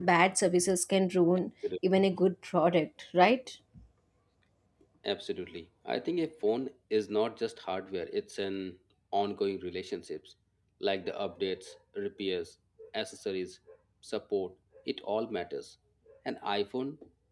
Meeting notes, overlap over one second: none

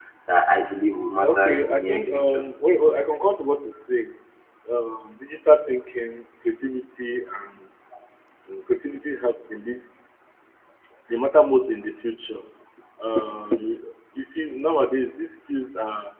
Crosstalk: present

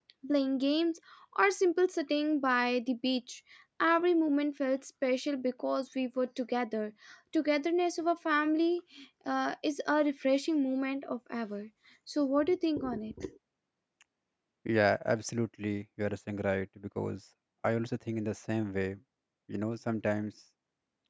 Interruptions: none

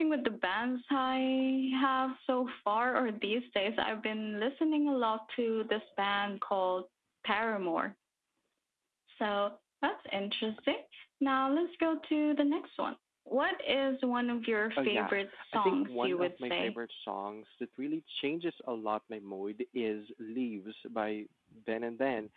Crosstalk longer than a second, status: present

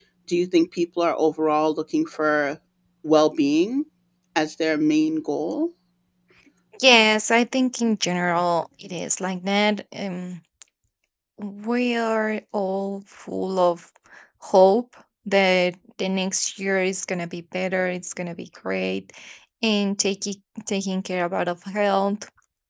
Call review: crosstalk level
none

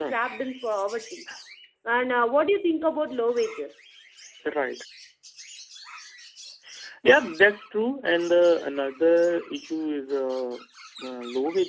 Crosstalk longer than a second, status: none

